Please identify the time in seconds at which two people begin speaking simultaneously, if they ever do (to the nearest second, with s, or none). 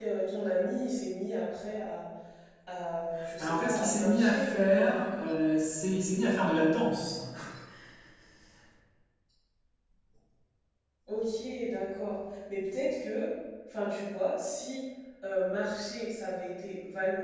3 s